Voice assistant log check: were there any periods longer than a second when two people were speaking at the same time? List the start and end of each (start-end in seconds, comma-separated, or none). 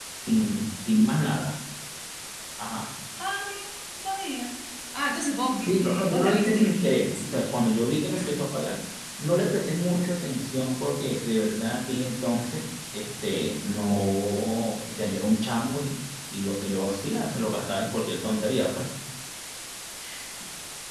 5.6-7.5